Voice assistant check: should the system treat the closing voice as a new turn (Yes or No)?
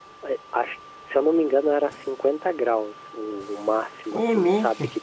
No